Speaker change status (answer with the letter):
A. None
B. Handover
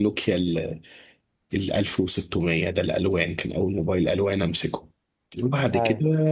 A